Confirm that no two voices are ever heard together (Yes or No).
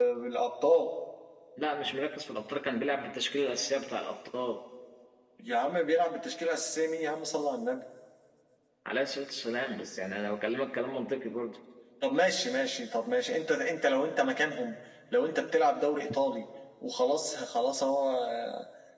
Yes